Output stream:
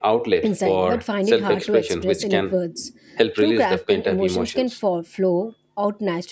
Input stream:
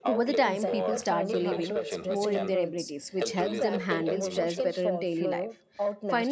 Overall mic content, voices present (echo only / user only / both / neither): both